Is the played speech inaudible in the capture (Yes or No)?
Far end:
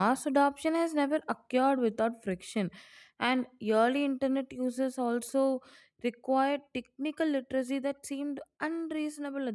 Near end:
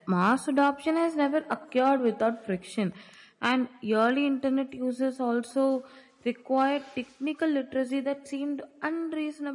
No